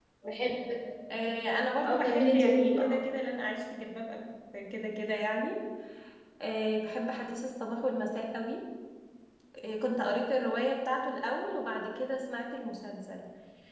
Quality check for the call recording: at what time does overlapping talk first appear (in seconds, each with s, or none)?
1.1 s